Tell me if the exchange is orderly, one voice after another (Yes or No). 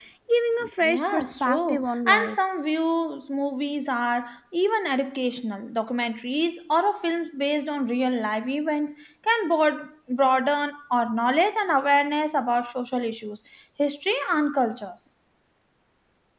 No